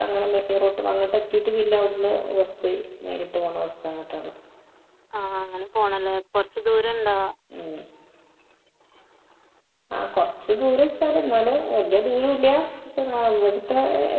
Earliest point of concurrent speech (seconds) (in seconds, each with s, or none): none